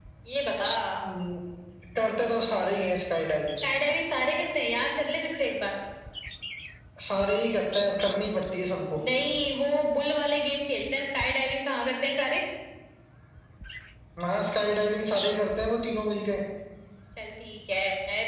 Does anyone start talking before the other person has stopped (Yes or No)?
No